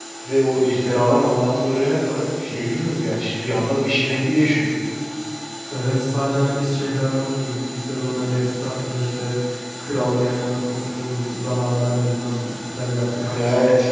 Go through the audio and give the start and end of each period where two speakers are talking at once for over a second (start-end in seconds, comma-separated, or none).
none